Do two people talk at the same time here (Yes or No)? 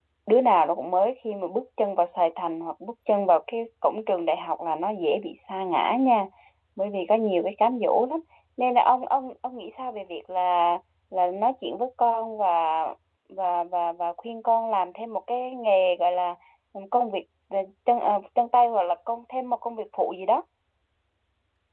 No